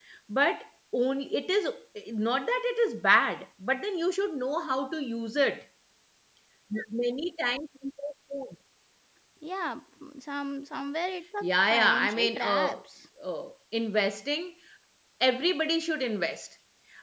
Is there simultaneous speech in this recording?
Yes, from 11.4 s

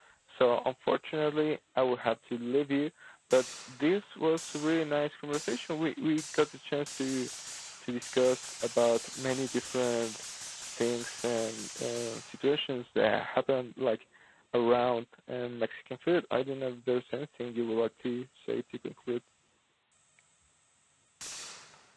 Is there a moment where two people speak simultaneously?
No

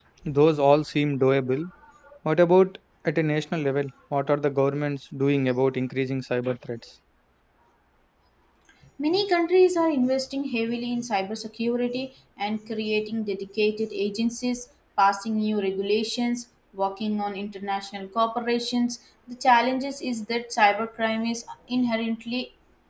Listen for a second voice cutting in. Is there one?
No

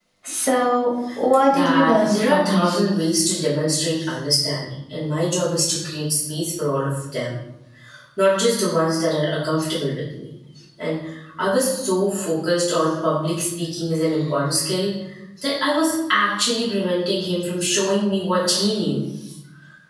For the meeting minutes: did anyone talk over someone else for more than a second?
Yes, from 1.5 s

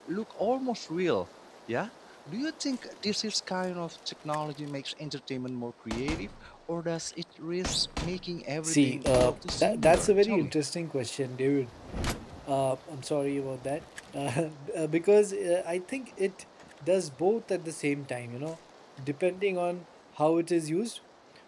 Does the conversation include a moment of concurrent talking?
Yes, from 8.6 s

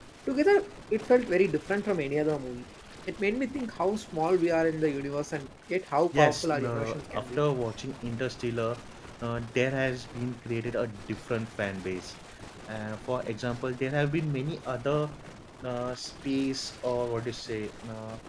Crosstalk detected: Yes, from 6.1 s

